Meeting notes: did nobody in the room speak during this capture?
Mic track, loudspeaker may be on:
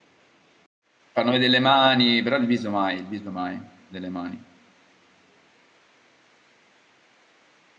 No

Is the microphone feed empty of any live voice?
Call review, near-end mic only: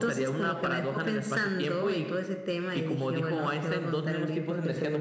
Yes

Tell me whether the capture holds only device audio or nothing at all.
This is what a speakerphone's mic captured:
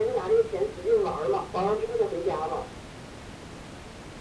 Yes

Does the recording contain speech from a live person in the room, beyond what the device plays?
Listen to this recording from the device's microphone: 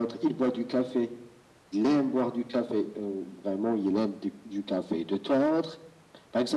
No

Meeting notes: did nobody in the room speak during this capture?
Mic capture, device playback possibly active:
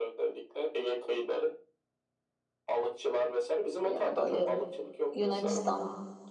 No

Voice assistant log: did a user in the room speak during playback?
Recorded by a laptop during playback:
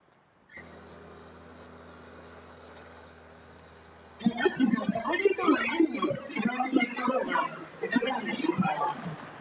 No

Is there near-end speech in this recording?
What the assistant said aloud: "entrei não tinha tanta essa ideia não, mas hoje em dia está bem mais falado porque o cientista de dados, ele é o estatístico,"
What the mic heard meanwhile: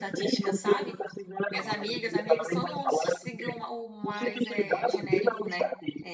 Yes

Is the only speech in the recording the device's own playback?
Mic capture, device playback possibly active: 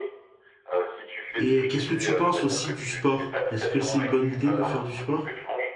No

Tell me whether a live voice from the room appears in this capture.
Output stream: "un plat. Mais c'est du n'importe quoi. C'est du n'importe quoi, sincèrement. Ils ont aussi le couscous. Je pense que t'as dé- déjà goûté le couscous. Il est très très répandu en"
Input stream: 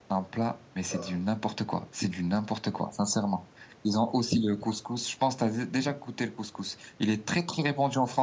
Yes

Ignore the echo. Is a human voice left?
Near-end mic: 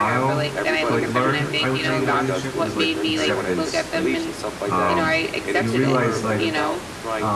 Yes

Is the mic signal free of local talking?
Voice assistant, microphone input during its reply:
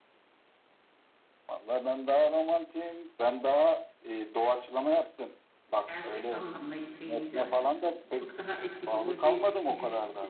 No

